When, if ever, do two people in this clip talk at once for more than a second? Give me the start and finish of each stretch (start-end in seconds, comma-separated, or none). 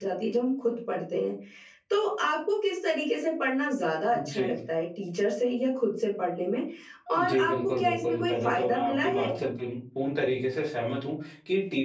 7.2-9.3